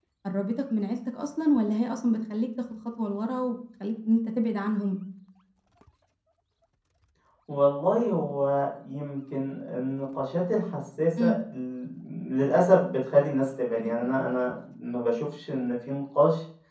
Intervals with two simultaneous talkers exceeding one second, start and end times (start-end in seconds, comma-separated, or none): none